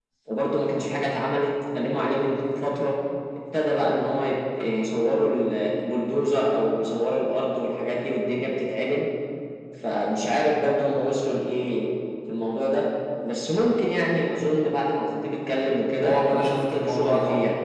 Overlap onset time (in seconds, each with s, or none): 16.0 s